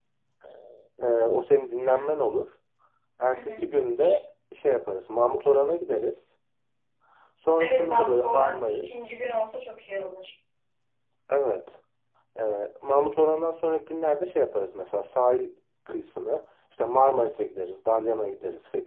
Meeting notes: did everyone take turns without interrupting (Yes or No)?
No